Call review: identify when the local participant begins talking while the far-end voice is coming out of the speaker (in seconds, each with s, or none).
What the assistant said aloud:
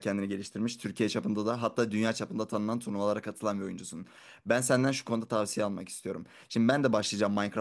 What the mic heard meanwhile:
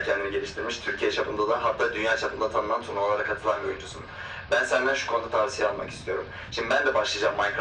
none